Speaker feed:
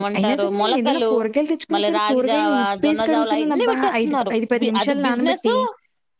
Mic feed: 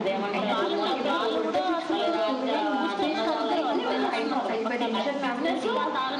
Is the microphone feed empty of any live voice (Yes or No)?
No